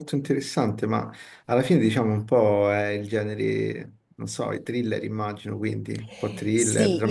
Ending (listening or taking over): taking over